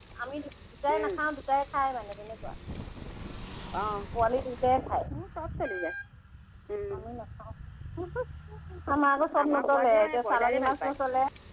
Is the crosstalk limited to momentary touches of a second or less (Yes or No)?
No